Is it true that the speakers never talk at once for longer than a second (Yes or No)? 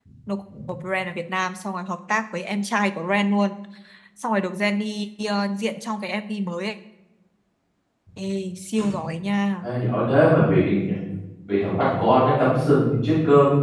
Yes